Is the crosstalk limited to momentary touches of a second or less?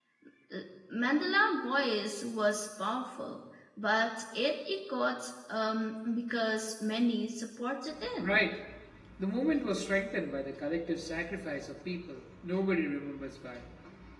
Yes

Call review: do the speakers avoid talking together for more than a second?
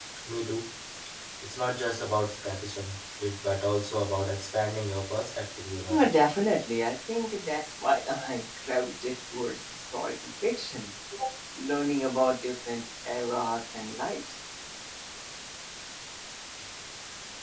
Yes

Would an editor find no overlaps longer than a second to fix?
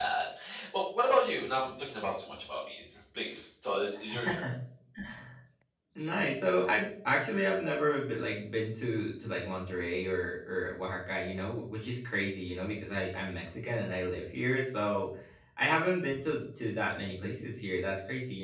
Yes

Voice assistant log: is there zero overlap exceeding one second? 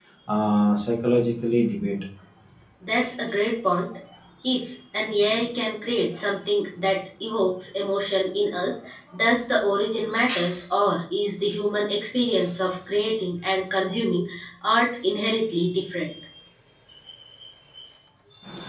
Yes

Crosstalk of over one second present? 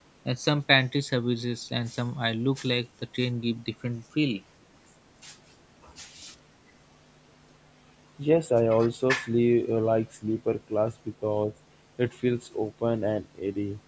No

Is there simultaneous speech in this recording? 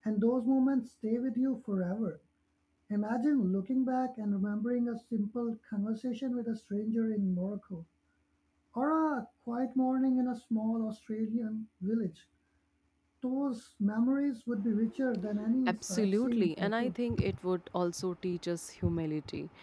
Yes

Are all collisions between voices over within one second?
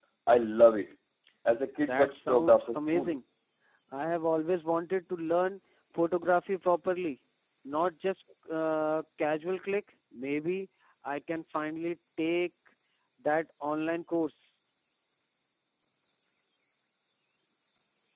No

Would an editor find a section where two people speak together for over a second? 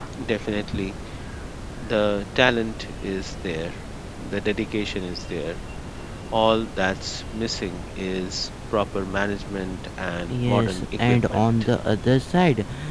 Yes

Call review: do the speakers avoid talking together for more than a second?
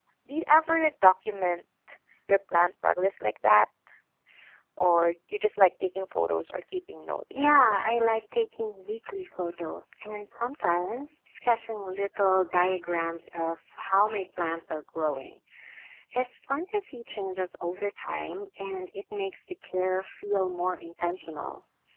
Yes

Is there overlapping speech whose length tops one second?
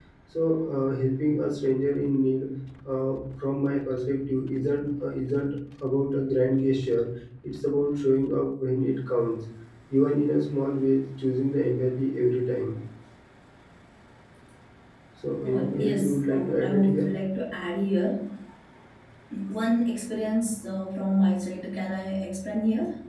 Yes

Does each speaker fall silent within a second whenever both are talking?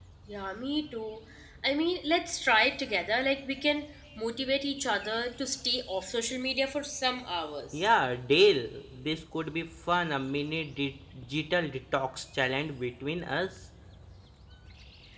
Yes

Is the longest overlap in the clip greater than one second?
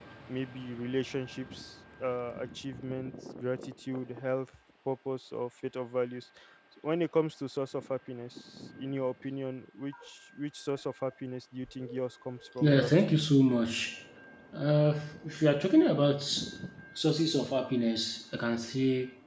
No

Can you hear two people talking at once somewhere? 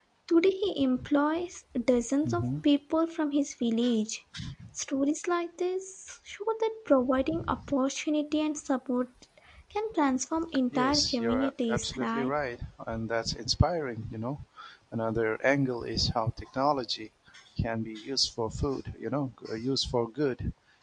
Yes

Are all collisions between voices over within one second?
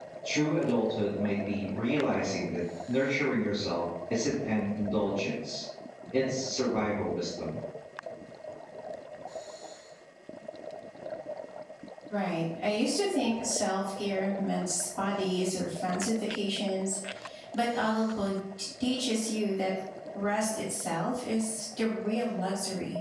Yes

